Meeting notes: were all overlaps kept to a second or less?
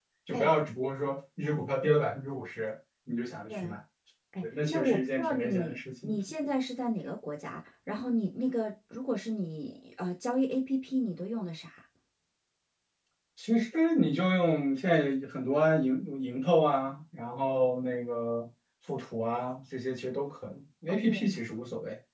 No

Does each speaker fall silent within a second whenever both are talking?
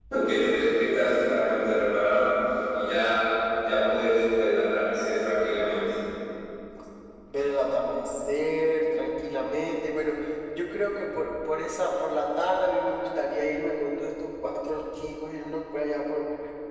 Yes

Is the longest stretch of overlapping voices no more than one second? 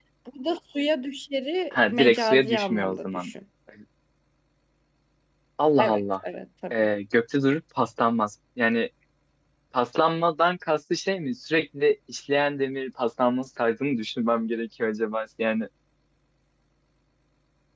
No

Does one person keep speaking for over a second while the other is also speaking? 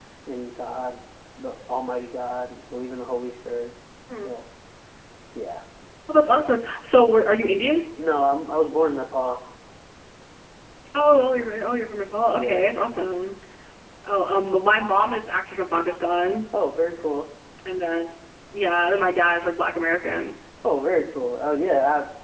No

